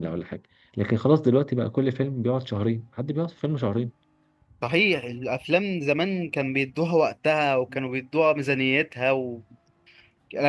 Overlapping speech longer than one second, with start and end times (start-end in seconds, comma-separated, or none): none